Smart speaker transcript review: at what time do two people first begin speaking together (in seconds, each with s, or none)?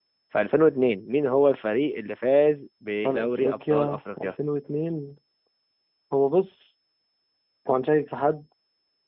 3.0 s